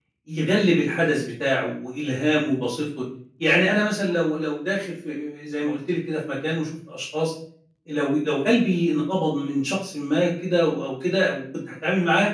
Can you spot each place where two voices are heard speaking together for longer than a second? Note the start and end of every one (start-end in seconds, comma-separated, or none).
none